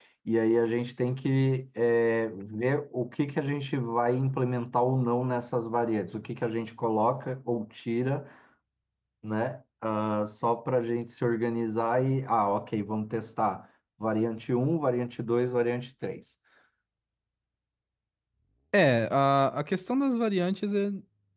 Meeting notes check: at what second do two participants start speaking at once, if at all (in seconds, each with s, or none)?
none